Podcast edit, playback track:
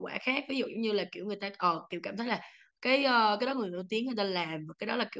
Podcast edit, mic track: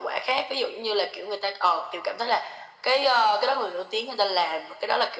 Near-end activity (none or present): none